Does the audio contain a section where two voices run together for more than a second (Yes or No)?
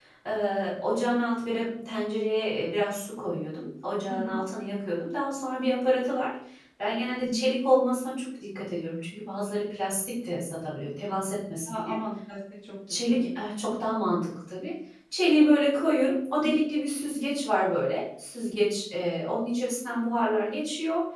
No